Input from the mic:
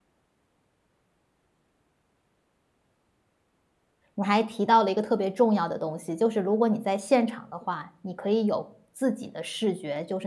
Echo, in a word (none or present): none